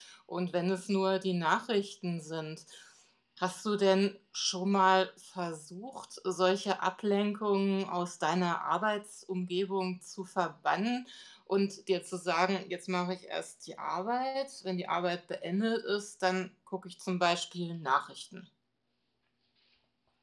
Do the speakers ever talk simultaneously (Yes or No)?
No